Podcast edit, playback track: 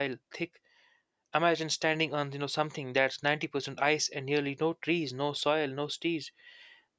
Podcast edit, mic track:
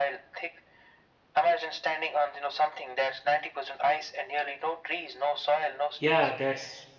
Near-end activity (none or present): present